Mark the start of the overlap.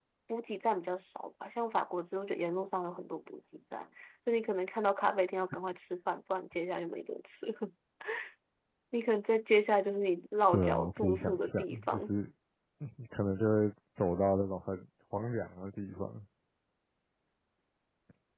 10.5 s

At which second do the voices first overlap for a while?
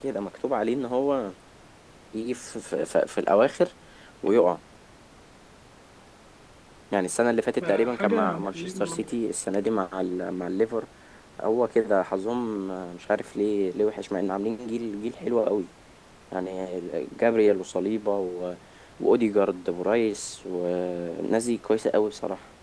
7.6 s

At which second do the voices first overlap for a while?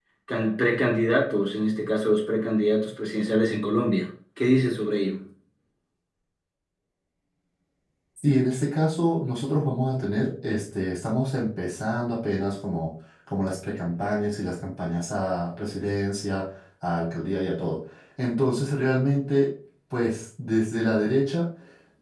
none

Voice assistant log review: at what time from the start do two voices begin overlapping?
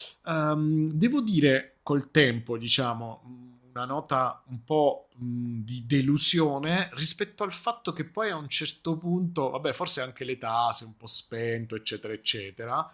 none

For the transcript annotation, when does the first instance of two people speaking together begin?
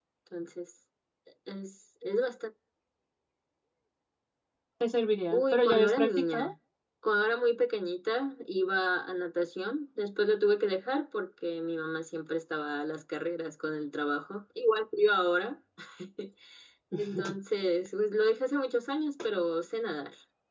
5.3 s

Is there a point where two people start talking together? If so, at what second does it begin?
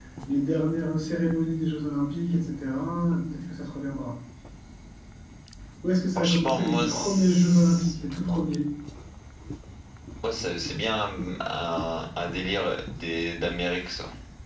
6.2 s

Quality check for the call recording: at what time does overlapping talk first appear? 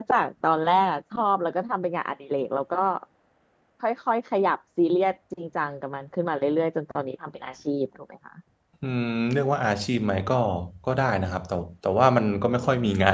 none

